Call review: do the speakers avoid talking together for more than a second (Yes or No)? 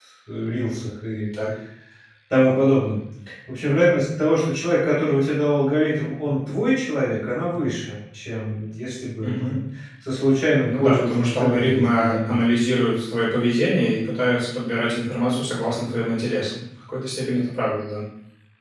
No